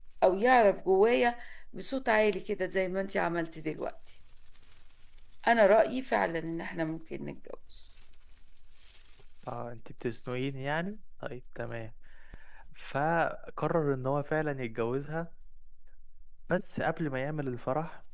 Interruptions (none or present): none